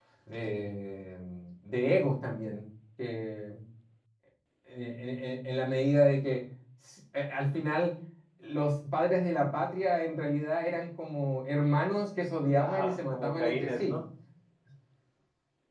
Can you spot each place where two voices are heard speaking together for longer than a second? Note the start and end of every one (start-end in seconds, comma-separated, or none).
12.6-14.0